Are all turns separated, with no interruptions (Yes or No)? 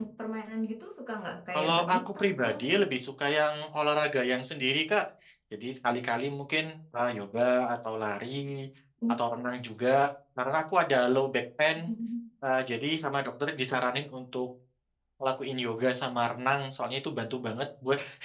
No